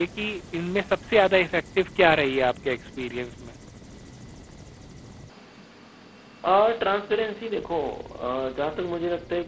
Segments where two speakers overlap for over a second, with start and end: none

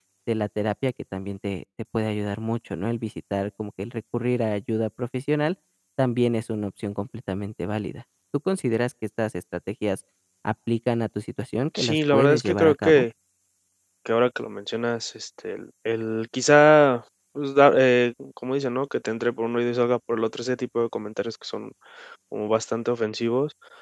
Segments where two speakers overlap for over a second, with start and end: 11.8-13.0

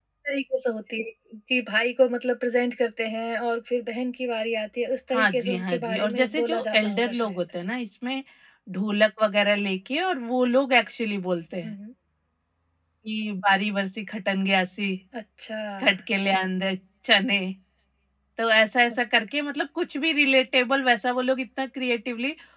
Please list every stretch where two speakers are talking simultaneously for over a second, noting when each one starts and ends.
5.1-7.4

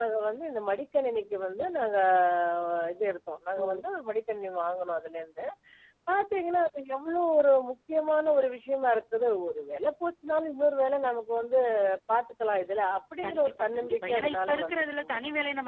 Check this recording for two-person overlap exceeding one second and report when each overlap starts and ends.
13.2-15.2

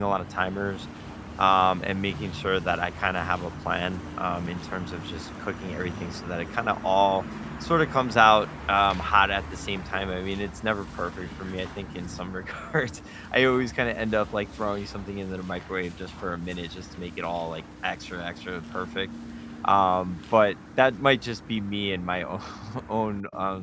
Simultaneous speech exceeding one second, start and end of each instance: none

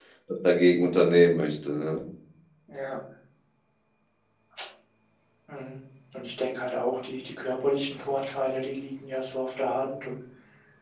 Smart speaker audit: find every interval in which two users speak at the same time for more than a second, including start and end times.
none

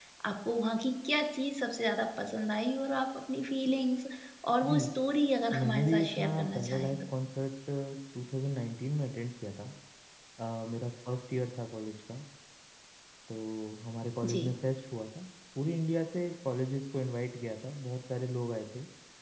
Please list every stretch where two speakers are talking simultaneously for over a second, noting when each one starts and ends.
5.5-6.9

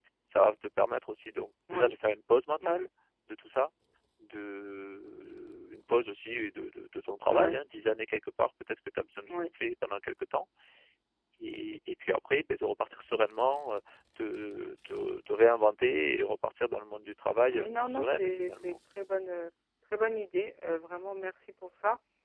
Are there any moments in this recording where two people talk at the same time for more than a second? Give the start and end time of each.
17.5-18.8

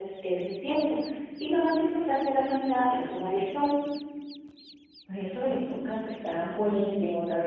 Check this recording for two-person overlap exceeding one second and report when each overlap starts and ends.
none

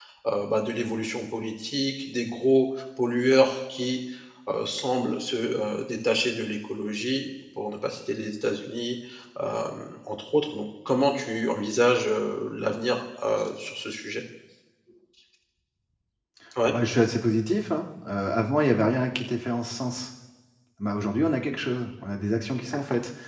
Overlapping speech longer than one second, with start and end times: none

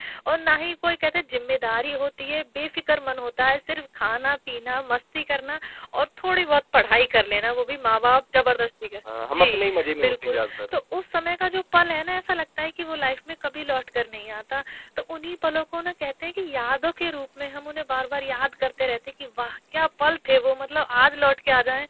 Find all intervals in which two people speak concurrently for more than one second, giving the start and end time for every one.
9.3-10.7

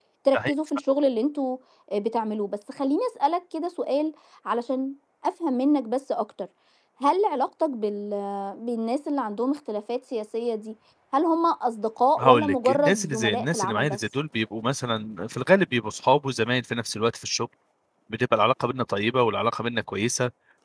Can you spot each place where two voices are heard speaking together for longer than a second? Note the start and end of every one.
12.2-14.0

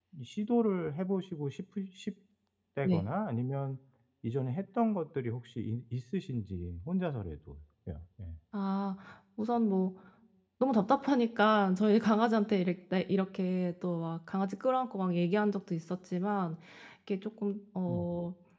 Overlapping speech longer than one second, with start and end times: none

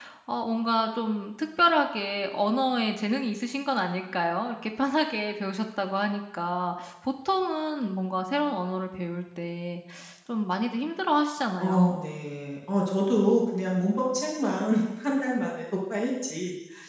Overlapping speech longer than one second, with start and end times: none

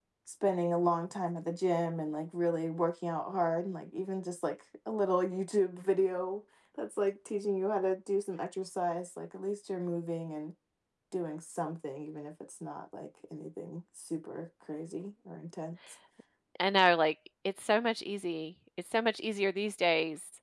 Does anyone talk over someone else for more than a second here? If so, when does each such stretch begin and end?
none

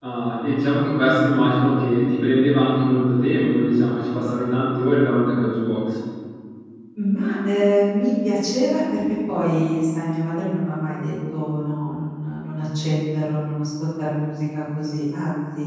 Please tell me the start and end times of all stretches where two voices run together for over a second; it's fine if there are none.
none

